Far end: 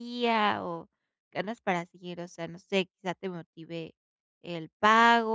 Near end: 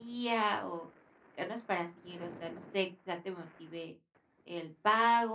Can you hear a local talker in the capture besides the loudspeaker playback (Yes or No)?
No